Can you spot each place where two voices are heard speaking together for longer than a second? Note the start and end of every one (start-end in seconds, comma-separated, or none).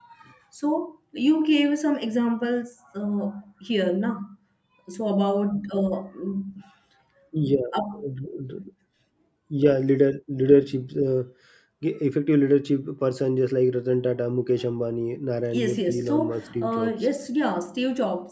15.5-16.9